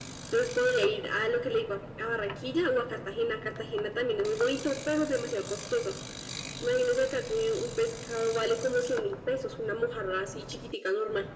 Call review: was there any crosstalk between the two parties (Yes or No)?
No